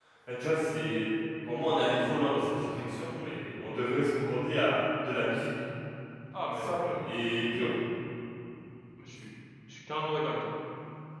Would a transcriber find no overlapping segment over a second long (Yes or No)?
Yes